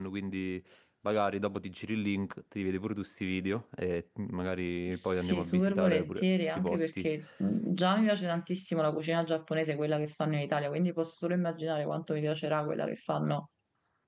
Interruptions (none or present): present